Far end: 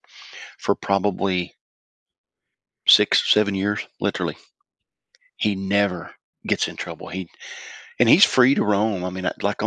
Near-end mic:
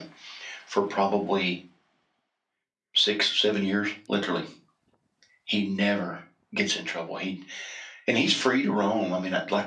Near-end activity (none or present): none